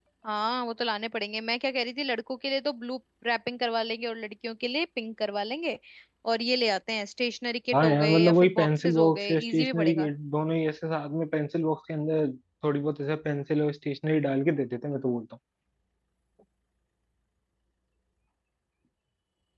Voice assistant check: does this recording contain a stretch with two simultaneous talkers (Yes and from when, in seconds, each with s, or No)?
Yes, from 7.7 s